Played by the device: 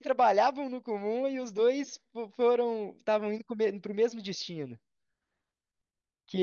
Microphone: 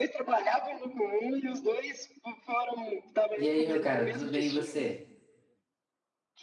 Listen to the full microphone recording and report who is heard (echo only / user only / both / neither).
both